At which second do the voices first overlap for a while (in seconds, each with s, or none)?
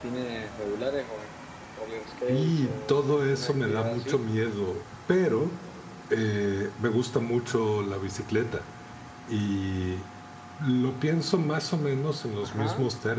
2.3 s